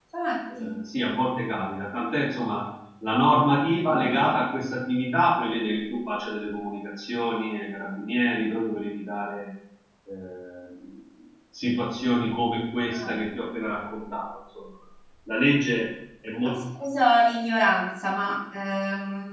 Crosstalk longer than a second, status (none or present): none